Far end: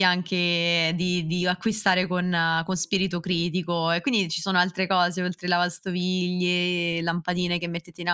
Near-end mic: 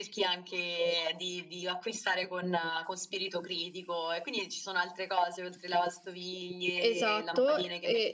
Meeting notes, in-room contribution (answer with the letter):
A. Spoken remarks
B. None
A